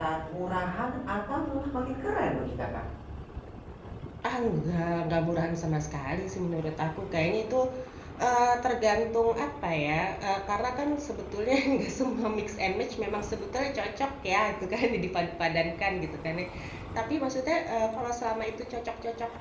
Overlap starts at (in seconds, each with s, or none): none